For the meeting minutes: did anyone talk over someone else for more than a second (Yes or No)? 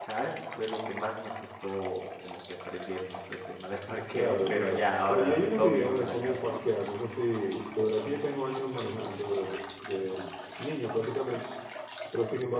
Yes